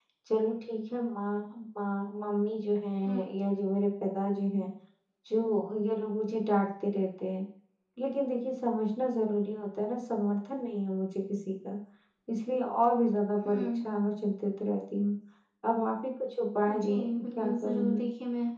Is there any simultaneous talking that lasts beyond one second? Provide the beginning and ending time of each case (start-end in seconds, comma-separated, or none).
16.7-18.0